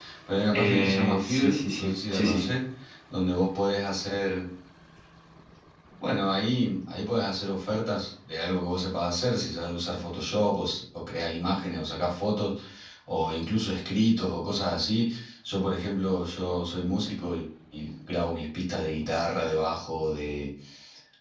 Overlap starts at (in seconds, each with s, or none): 0.5 s